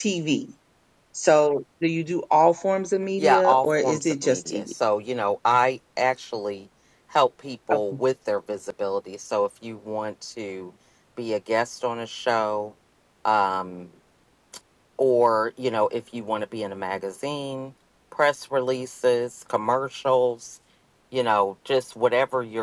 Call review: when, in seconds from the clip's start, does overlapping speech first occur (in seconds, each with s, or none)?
3.2 s